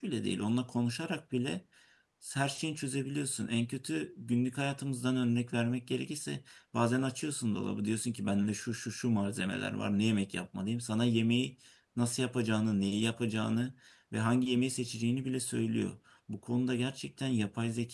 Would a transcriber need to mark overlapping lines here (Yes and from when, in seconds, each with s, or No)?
No